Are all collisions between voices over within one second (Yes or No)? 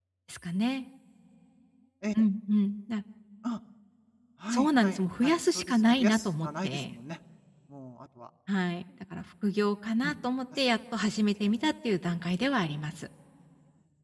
No